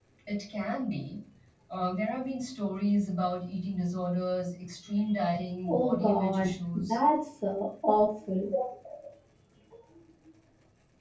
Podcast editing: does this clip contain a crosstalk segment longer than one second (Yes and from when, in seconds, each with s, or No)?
Yes, from 5.6 s